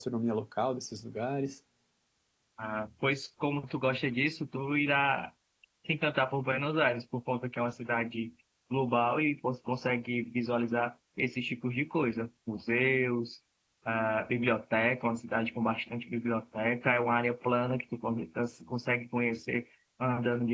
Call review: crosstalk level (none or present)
none